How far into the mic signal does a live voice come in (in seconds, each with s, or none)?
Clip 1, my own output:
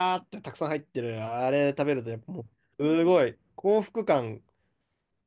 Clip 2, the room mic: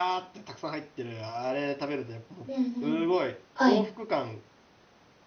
2.4 s